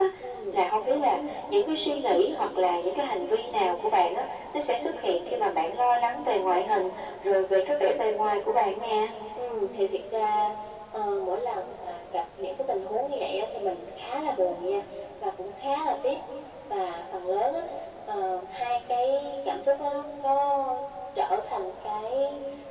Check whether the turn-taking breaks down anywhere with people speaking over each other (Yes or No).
No